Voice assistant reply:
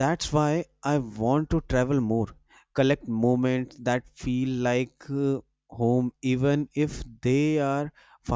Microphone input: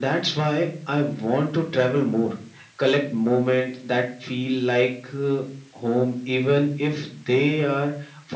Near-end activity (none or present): none